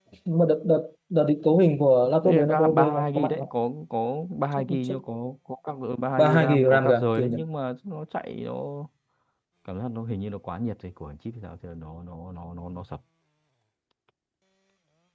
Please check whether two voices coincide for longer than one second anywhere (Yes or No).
Yes